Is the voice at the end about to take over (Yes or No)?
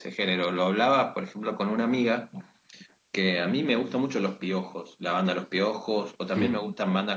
No